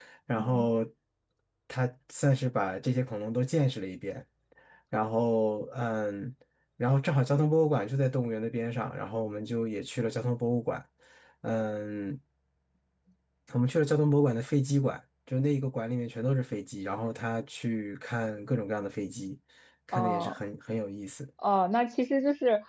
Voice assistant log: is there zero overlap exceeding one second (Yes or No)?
Yes